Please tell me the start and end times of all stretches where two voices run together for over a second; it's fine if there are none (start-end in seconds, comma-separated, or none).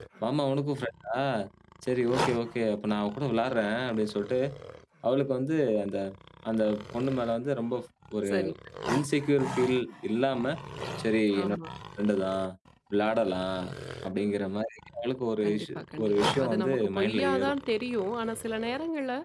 15.4-17.5